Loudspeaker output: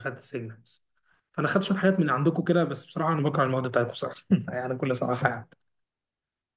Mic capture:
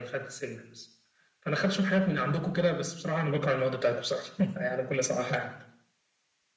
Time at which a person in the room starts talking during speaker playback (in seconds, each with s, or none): none